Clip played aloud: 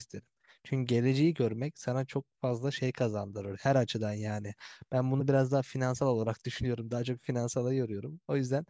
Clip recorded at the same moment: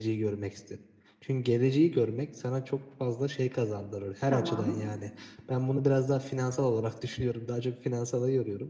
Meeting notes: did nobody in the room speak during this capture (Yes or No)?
No